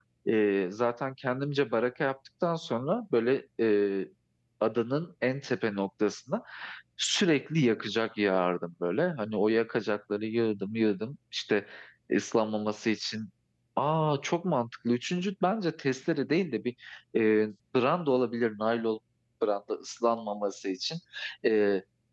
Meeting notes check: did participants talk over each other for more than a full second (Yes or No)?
No